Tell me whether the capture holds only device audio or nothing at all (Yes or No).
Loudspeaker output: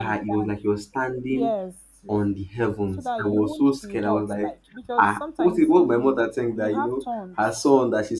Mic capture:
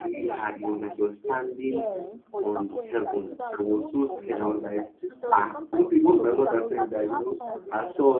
No